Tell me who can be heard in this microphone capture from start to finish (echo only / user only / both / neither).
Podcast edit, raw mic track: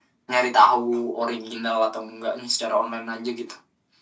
echo only